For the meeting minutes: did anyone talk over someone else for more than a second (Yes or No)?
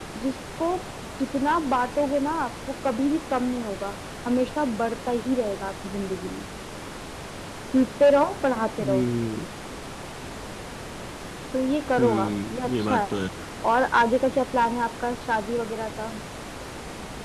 Yes